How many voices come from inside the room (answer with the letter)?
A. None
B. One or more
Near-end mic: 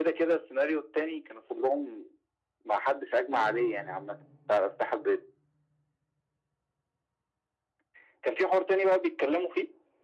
B